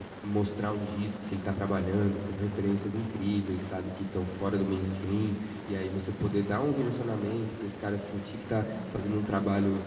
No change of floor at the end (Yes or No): Yes